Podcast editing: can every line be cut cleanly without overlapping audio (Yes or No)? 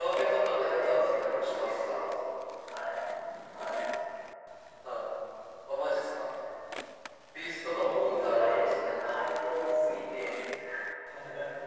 No